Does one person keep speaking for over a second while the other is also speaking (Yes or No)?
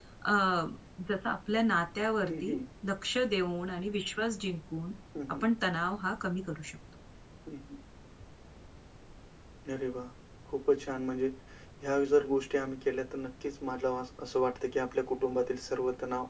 No